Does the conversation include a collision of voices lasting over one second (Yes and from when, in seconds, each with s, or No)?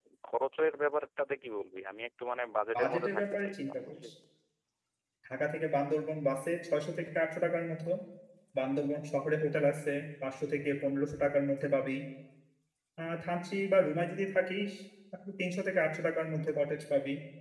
Yes, from 2.7 s